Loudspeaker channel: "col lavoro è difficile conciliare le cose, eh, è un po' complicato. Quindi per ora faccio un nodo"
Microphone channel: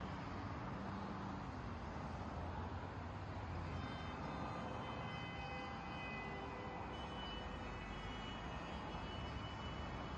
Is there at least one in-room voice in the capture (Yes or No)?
No